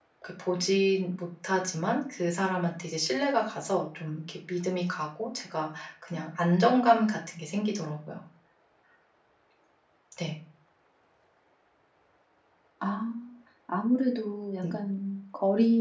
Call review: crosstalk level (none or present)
none